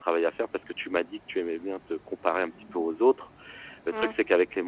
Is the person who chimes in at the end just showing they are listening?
Yes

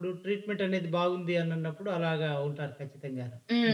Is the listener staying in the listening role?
No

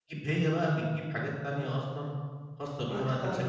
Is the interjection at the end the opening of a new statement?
No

